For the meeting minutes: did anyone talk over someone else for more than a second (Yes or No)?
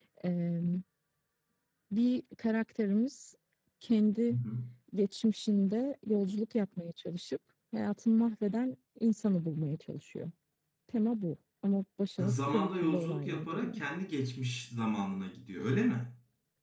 Yes